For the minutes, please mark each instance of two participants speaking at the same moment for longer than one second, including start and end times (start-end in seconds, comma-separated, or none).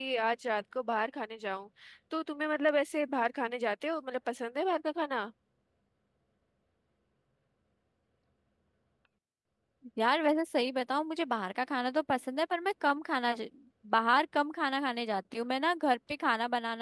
none